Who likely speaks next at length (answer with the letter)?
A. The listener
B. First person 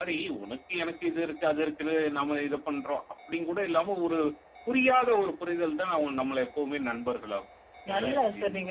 A